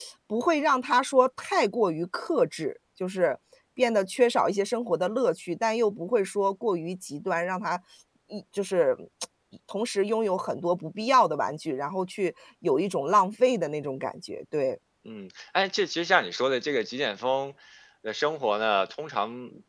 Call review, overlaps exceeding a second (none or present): none